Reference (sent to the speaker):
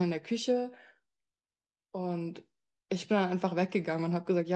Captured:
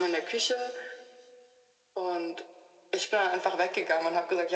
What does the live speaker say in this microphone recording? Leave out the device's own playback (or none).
none